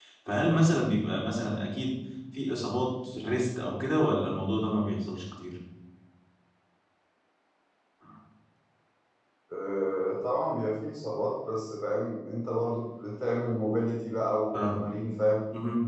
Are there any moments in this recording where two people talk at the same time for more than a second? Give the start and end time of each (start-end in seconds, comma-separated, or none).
none